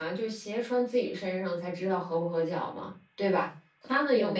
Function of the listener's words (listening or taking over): listening